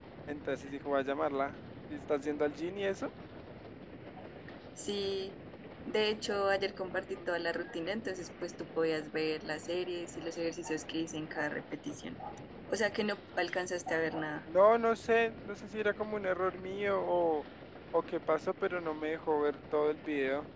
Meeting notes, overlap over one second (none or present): none